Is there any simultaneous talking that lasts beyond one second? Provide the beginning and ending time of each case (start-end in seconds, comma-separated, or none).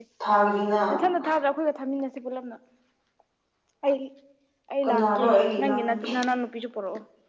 4.8-6.1